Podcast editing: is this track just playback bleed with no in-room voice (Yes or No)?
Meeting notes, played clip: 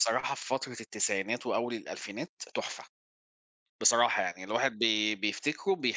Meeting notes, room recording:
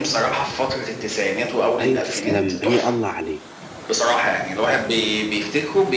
No